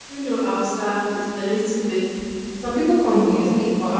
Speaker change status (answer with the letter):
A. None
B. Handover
A